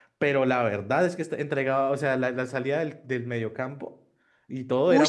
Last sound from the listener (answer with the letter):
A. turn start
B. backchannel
A